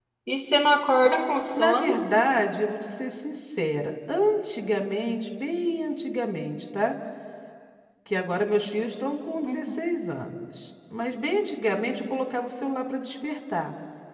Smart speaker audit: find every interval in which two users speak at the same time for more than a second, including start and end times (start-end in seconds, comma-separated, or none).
none